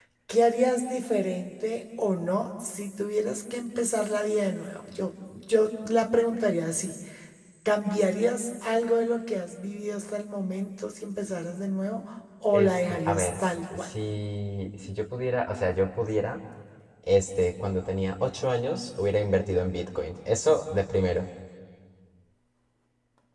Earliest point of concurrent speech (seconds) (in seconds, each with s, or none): 12.5 s